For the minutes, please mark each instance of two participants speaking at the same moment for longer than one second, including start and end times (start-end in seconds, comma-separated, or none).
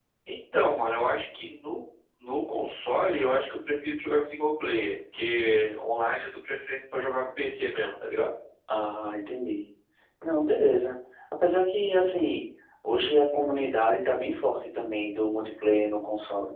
none